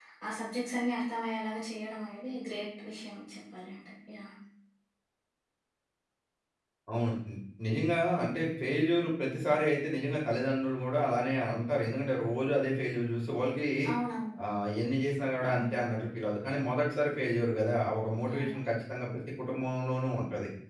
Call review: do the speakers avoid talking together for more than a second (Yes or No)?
Yes